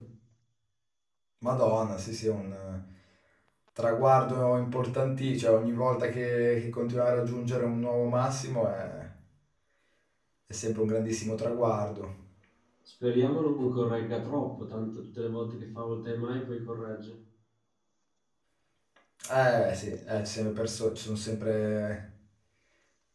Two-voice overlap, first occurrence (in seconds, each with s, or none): none